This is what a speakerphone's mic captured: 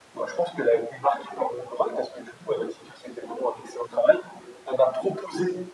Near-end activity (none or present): none